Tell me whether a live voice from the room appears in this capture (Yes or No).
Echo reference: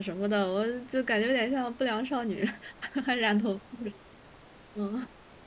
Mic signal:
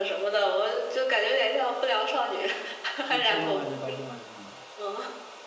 Yes